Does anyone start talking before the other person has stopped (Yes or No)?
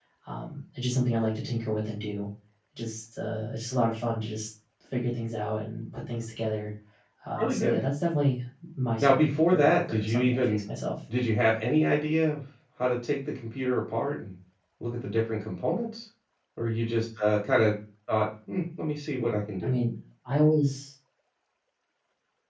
Yes